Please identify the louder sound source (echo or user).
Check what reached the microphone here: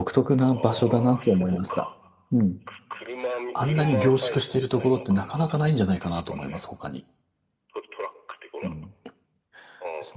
user